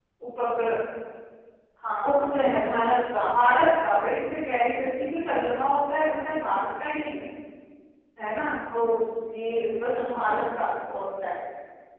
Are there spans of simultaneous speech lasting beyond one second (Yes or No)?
No